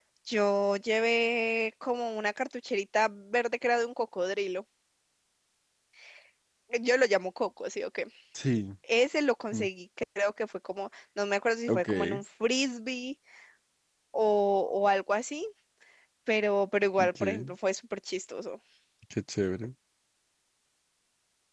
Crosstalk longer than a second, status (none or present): none